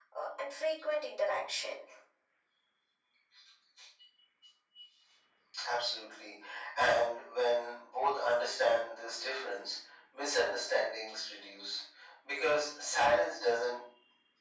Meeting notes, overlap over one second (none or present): none